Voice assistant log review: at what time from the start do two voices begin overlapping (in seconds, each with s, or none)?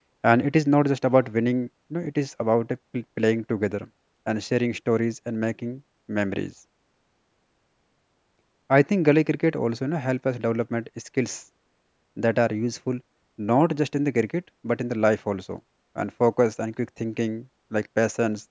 none